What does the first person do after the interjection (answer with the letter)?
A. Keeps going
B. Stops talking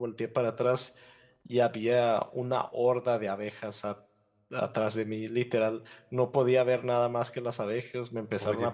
B